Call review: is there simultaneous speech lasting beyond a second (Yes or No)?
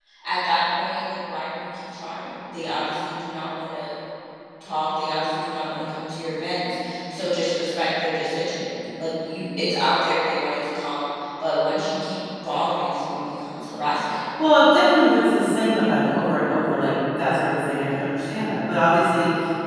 No